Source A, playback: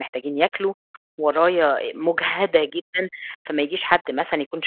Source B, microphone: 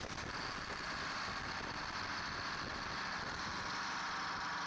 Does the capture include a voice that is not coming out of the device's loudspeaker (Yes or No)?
No